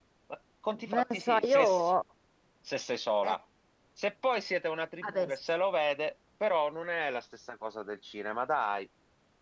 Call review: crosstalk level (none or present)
present